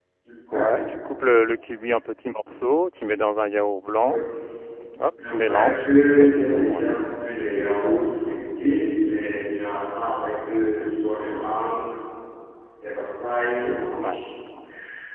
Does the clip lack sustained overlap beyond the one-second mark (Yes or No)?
No